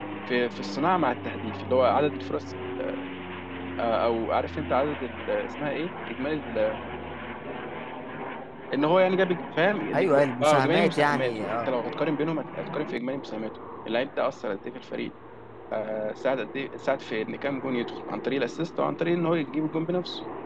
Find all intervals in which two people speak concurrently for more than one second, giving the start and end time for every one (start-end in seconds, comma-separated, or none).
9.9-11.7